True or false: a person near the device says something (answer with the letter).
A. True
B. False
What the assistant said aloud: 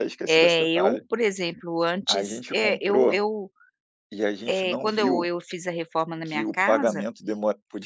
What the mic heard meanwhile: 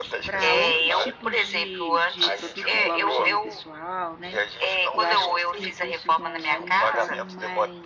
A